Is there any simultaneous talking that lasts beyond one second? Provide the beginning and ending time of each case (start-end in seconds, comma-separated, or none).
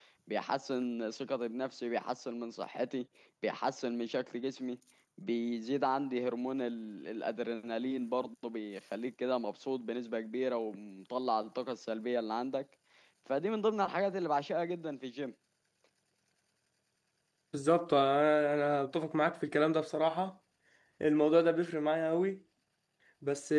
none